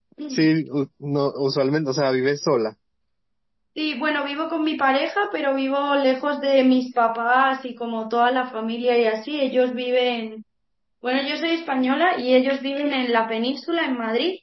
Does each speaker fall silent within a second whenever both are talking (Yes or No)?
Yes